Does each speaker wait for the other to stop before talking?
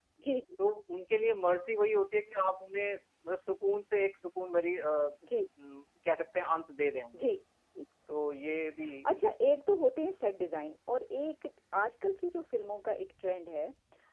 Yes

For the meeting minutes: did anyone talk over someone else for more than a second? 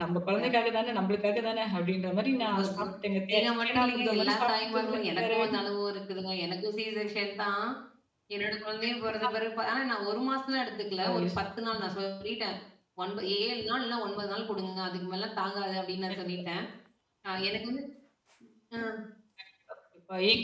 Yes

